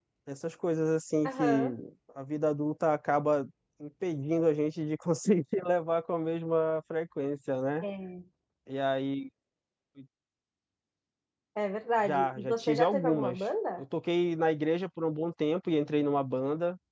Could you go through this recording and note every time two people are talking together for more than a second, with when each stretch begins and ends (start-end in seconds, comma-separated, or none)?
12.0-13.4